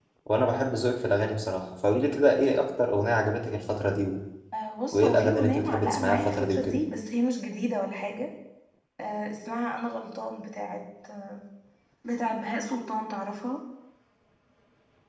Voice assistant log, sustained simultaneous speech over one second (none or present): present